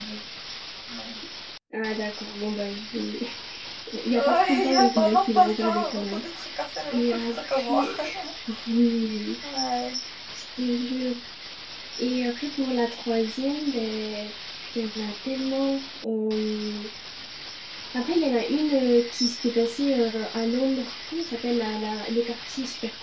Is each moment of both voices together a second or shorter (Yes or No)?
No